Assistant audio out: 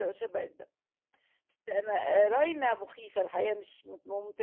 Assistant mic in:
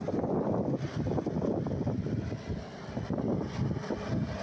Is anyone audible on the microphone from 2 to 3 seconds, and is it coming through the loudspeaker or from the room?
neither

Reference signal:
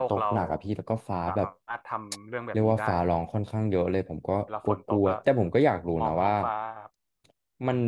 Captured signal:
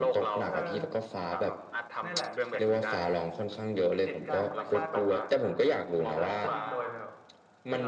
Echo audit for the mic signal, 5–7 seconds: both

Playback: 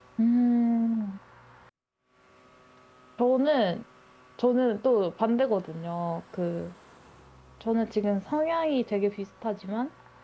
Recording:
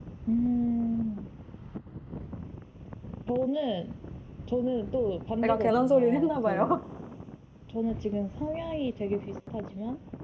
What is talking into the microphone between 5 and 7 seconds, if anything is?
both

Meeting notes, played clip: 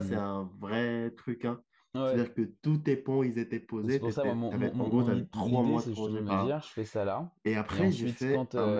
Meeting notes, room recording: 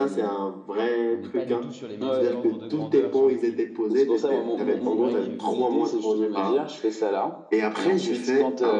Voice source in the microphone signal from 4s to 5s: both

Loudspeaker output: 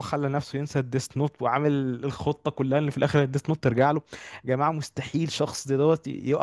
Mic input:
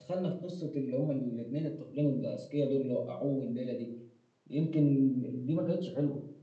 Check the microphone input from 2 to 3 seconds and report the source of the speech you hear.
user only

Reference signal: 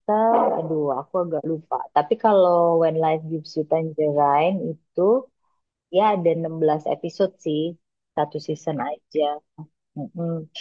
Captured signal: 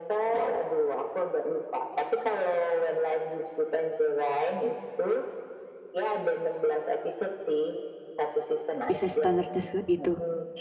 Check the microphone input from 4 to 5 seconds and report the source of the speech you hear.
echo only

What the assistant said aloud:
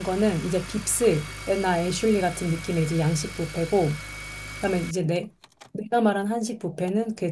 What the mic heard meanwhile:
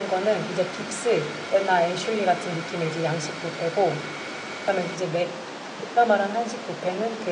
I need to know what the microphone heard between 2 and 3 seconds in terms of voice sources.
echo only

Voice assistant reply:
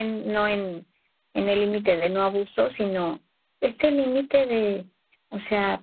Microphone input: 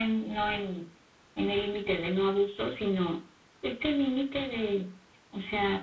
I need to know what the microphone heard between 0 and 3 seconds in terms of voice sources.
echo only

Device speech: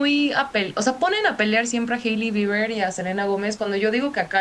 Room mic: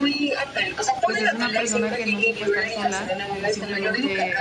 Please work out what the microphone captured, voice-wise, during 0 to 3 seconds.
both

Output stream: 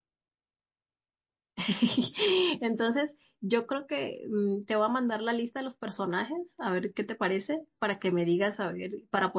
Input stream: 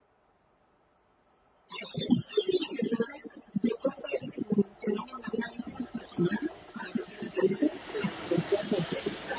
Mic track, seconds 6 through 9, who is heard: echo only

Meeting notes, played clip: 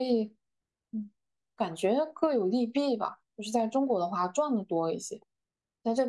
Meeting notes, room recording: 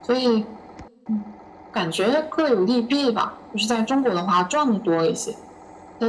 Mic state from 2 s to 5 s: echo only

